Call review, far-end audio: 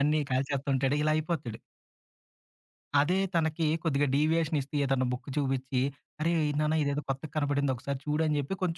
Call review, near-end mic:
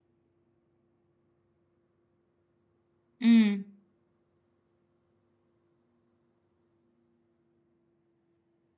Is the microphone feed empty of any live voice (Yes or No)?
No